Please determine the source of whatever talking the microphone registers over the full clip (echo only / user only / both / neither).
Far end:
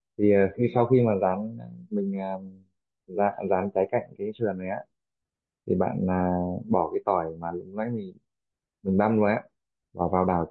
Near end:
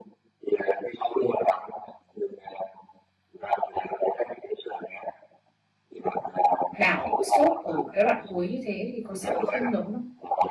both